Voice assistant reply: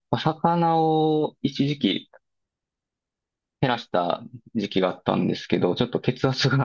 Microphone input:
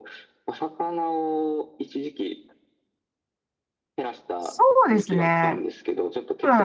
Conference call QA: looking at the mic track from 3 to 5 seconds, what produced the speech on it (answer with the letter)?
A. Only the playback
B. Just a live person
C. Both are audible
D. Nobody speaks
C